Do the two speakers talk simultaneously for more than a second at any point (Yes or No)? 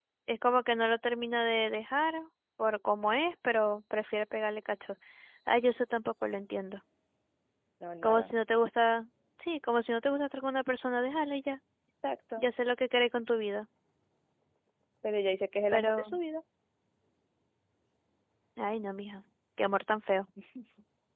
No